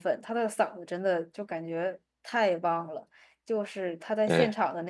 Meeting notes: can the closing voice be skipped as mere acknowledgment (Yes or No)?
Yes